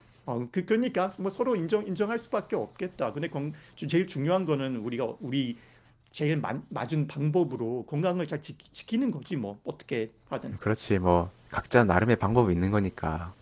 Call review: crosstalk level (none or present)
none